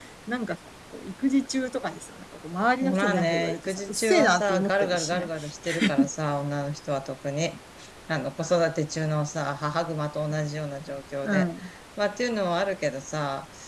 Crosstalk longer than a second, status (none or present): present